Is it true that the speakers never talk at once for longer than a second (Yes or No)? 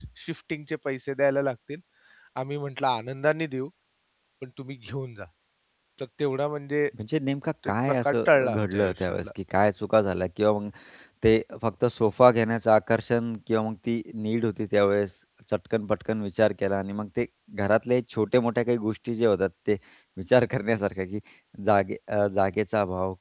No